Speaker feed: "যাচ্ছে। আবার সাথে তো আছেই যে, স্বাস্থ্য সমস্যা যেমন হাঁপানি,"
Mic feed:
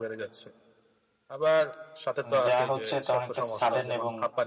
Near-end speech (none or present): present